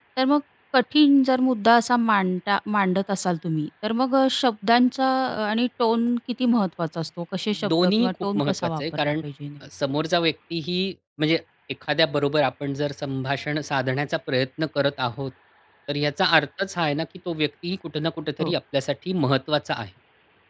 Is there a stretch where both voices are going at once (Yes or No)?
Yes